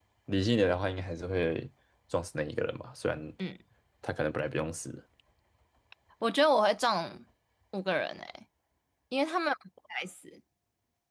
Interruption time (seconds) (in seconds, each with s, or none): none